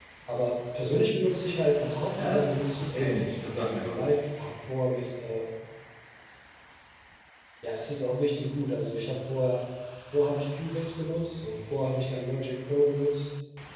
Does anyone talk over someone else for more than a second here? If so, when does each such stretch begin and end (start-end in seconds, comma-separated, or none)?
2.1-4.1